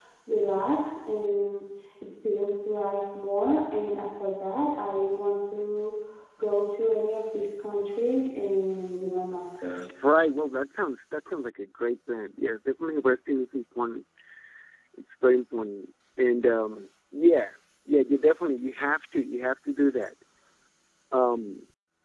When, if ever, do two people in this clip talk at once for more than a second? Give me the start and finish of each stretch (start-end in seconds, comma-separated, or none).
none